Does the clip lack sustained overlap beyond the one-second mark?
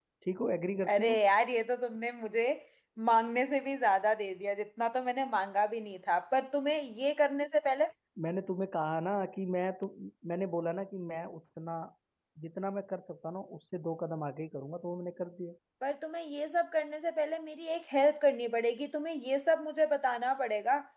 Yes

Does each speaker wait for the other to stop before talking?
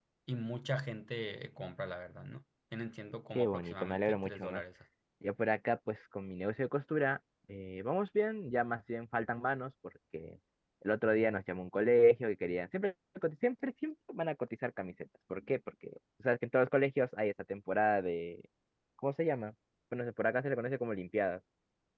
No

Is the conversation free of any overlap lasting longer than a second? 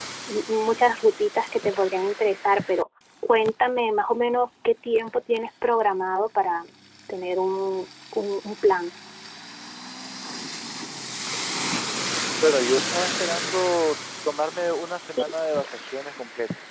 Yes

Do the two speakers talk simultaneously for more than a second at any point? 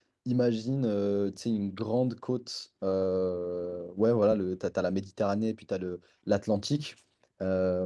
No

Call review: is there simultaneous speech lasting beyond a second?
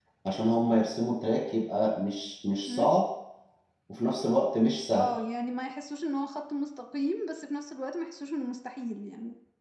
No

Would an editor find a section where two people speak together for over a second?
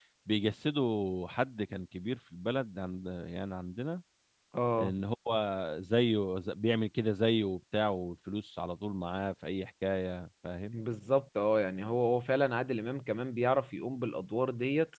No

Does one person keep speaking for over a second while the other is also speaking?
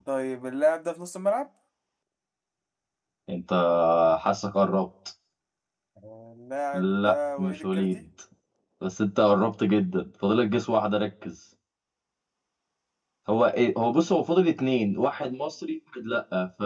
Yes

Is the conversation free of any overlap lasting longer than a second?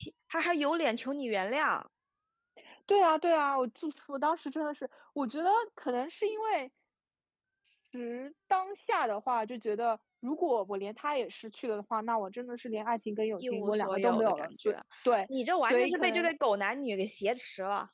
No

